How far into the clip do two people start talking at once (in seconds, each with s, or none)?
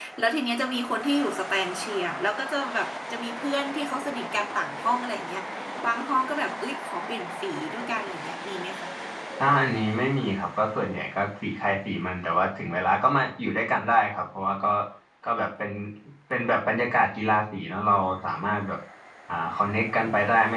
none